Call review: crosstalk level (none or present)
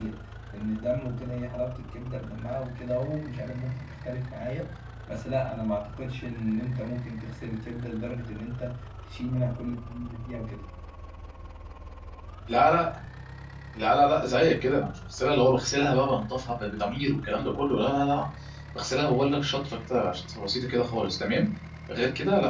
none